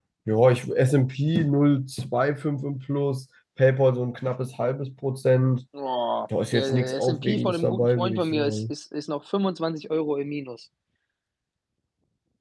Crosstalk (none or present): present